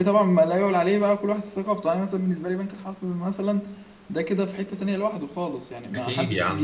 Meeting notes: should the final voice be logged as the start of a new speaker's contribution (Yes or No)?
Yes